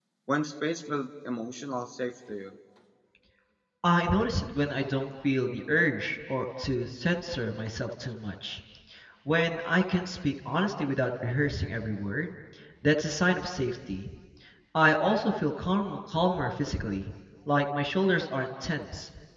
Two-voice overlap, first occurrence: none

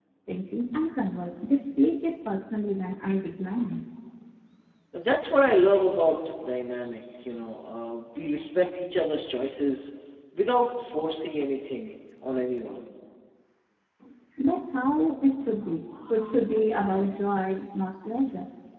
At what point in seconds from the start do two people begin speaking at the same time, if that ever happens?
none

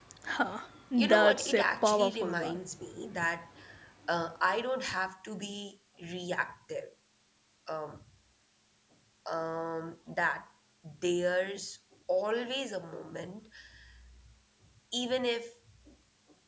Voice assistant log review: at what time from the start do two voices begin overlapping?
1 s

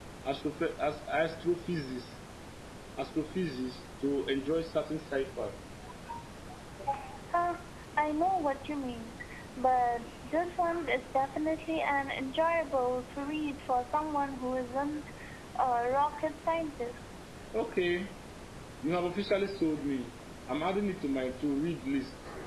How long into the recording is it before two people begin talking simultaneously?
none

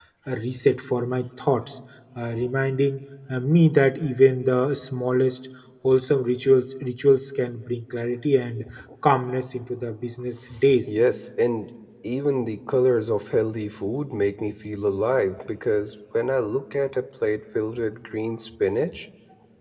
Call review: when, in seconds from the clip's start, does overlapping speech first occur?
none

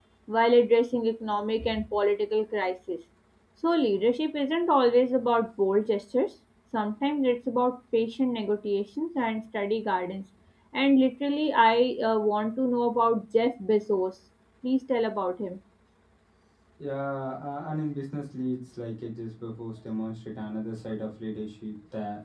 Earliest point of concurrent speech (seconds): none

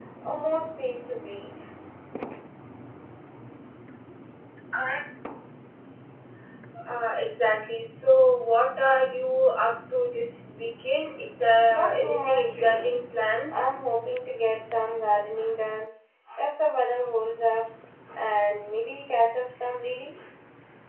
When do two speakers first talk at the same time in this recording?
12 s

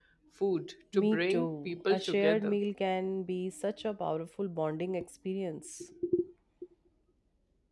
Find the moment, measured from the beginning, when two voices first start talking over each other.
1 s

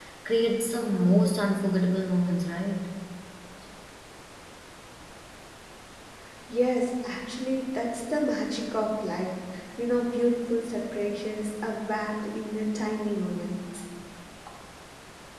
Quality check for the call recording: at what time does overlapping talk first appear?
none

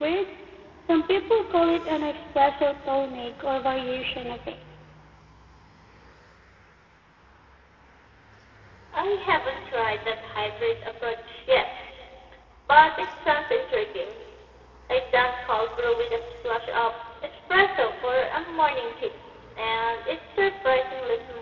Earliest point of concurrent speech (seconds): none

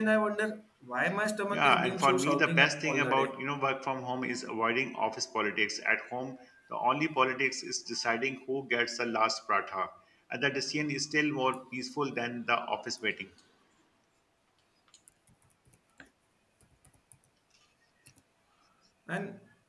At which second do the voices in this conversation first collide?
1 s

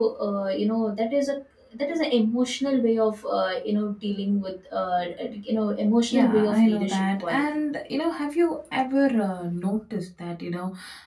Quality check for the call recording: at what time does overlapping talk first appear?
6 s

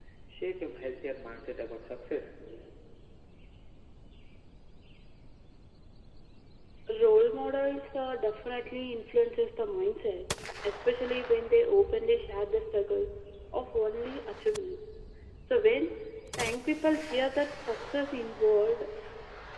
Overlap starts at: none

